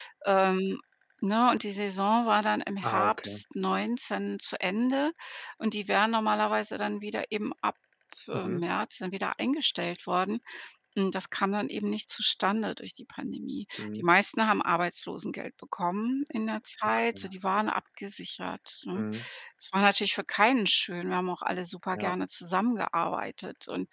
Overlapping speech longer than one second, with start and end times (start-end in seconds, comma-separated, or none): none